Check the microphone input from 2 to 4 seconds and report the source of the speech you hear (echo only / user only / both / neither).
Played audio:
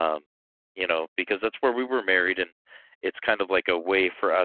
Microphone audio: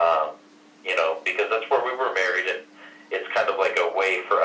echo only